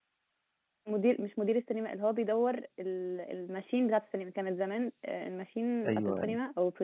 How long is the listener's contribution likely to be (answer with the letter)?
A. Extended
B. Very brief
B